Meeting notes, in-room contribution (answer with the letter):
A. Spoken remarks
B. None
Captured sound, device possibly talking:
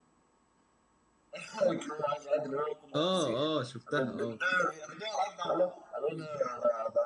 A